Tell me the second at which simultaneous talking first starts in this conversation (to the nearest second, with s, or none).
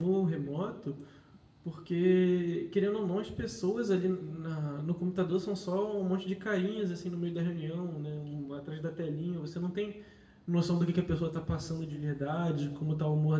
none